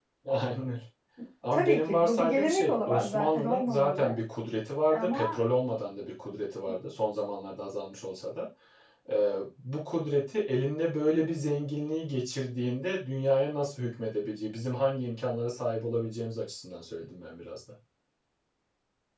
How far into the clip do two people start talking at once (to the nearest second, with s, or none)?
2 s